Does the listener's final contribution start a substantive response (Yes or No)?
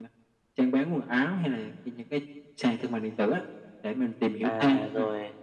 Yes